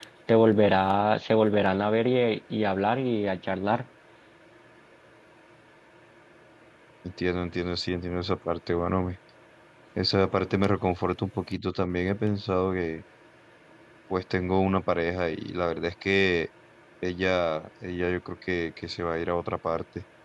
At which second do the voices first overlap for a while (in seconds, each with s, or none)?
none